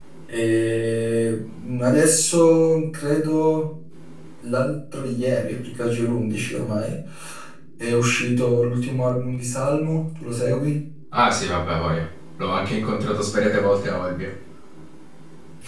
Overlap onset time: none

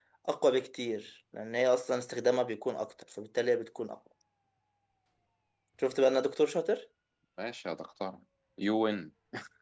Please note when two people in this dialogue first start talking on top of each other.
none

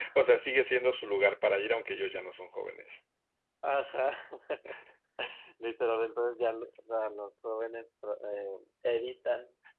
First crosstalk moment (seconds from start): none

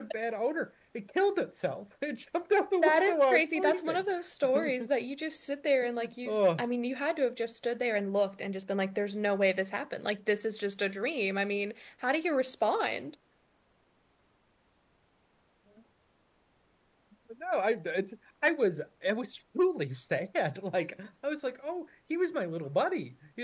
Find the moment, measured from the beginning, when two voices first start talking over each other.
2.8 s

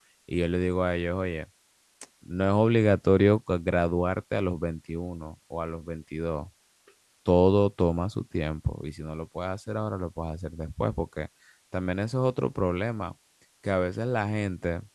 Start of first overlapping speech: none

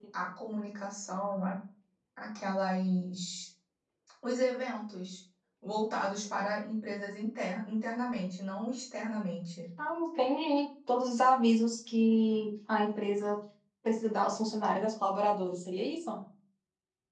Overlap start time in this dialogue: none

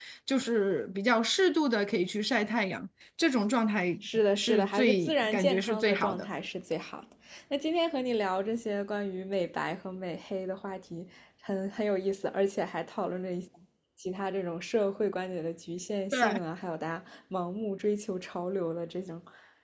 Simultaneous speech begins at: 4.4 s

